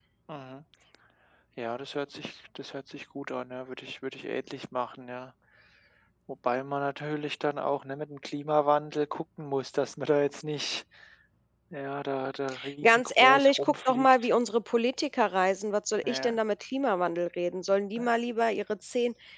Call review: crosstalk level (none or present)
present